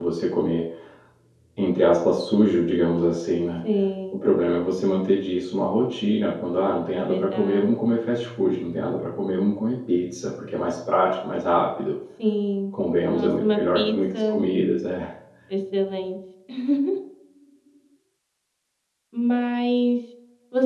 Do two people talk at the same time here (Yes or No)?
Yes